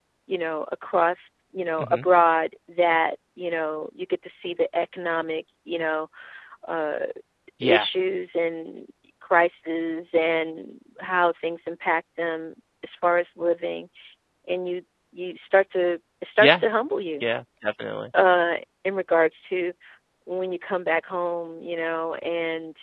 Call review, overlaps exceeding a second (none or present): none